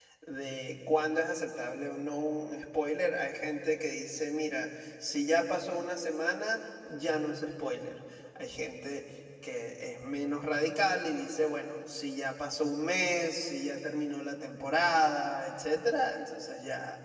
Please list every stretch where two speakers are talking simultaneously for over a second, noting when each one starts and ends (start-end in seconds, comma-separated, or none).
none